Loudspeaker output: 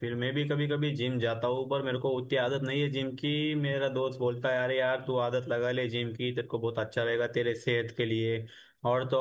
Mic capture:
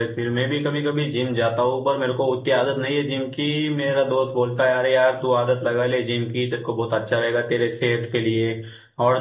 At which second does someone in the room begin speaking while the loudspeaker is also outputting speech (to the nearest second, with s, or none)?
none